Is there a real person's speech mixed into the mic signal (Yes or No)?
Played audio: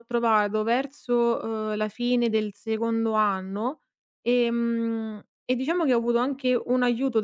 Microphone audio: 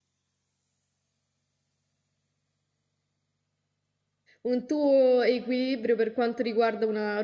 Yes